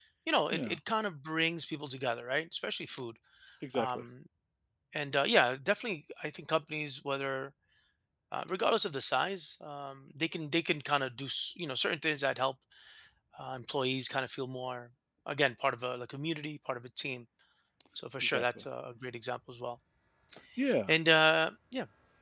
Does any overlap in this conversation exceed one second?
No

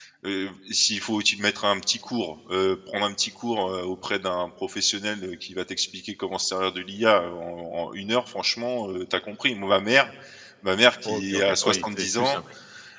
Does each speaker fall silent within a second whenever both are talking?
No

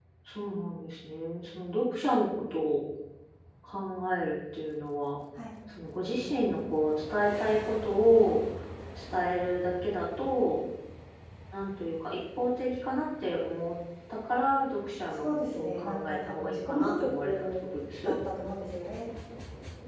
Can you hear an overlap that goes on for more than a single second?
Yes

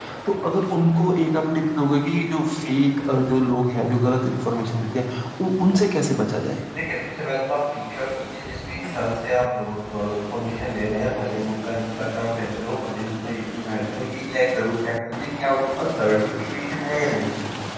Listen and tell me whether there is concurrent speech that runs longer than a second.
No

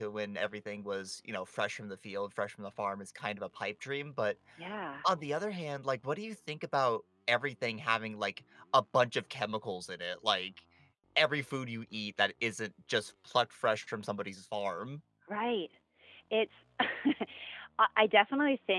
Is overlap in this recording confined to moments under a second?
Yes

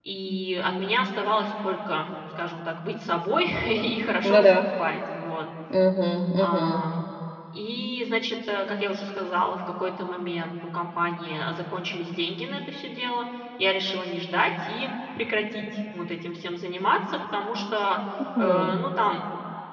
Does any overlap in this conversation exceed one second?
No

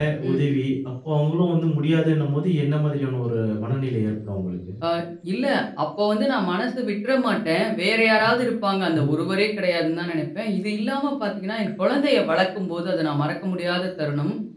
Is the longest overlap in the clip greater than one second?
No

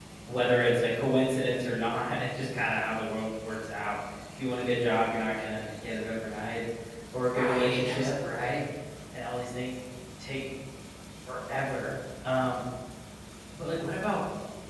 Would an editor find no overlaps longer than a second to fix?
No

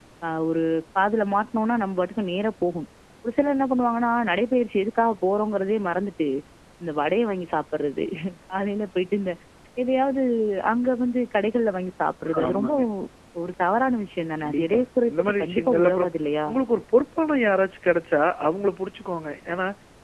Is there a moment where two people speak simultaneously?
Yes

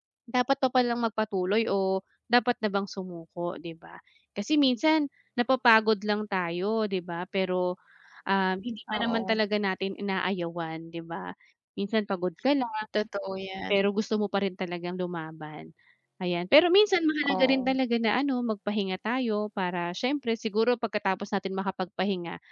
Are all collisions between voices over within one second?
Yes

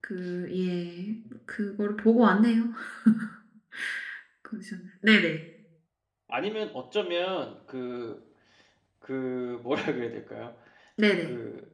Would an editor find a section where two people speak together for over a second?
No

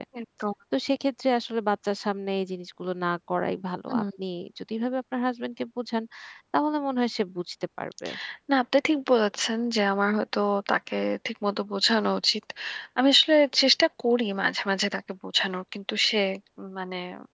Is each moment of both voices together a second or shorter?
Yes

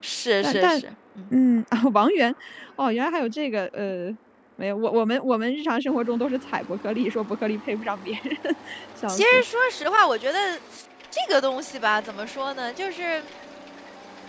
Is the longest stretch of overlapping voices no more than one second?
Yes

